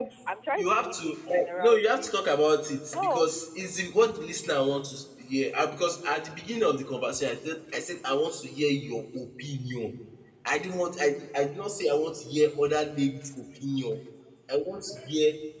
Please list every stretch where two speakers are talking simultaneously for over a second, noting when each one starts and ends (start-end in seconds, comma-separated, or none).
0.6-2.1